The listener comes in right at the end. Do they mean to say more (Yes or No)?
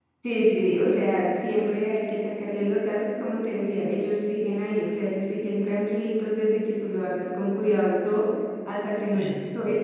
No